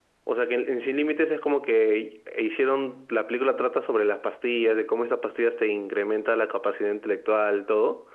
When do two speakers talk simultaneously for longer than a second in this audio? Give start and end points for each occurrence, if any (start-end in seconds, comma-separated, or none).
none